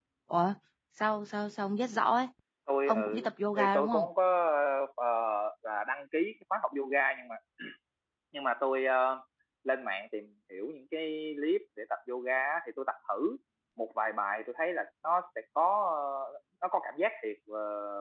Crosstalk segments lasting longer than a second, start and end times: 2.9-4.1

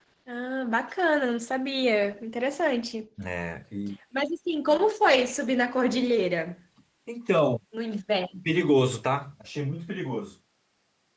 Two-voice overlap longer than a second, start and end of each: none

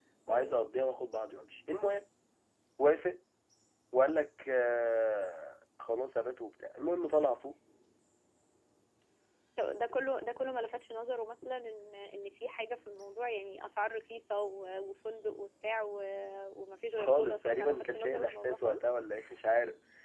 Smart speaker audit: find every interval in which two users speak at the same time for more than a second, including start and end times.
16.9-18.8

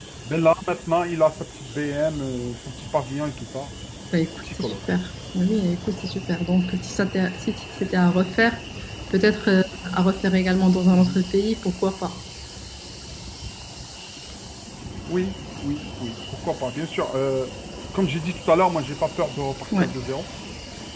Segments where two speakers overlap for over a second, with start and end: none

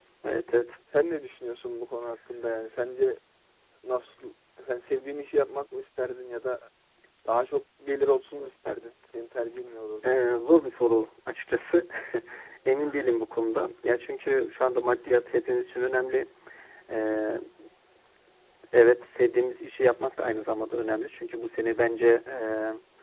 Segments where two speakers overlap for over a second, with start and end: none

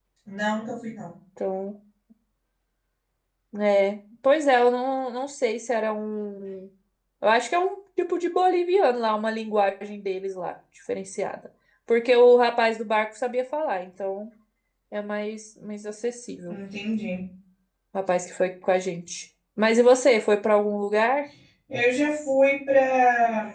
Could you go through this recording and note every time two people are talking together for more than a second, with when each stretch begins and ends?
none

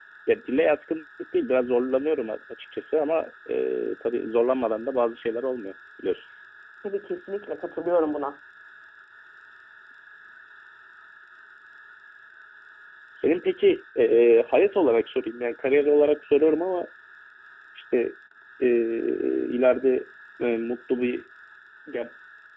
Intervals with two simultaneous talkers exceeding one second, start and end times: none

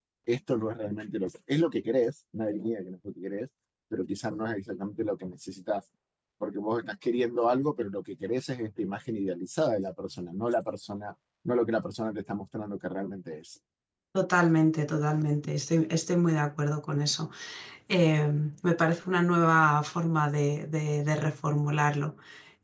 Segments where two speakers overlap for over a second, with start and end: none

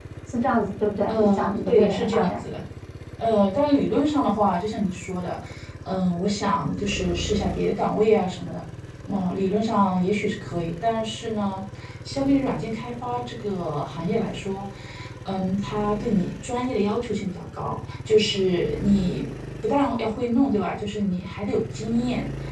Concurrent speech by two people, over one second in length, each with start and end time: 1.1-2.4

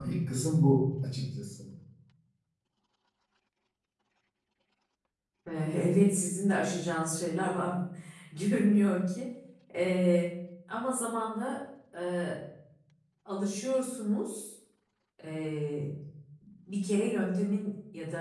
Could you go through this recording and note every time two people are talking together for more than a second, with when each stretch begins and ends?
none

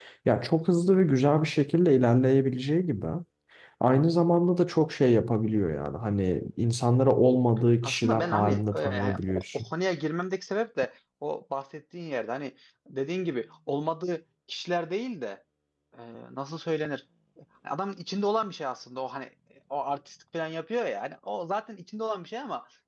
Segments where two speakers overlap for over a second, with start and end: 7.8-9.7

